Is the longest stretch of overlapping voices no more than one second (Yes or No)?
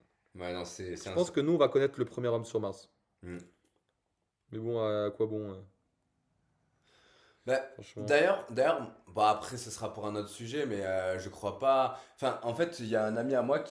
Yes